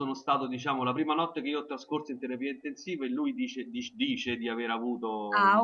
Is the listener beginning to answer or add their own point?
Yes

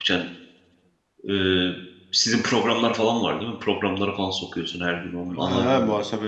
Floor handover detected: Yes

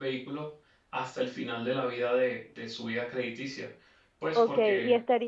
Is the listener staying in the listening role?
No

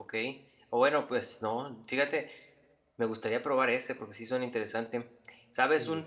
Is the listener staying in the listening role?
Yes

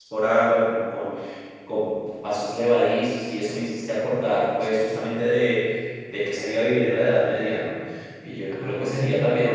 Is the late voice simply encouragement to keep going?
Yes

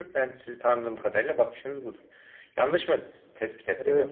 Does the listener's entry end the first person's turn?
Yes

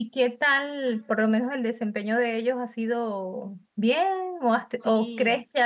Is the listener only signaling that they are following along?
Yes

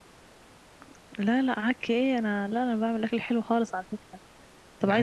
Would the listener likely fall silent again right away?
Yes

